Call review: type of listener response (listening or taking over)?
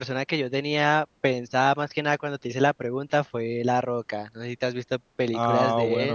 taking over